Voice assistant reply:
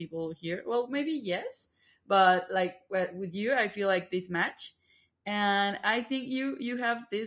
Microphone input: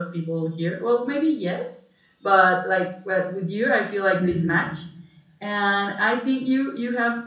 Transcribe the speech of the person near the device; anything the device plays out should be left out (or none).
mhm,